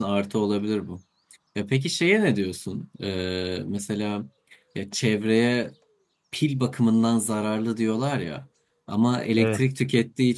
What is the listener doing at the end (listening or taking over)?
listening